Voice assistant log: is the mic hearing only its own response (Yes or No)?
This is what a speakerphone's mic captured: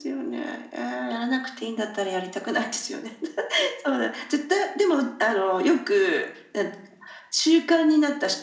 Yes